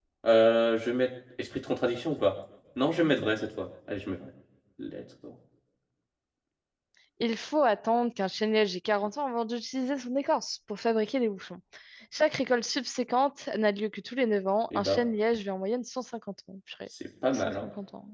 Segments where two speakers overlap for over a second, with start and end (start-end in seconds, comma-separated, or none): none